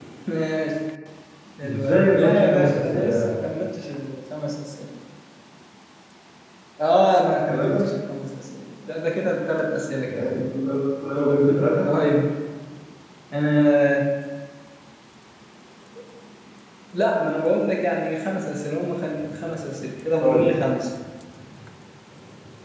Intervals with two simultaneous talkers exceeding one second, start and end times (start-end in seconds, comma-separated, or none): 1.6-3.4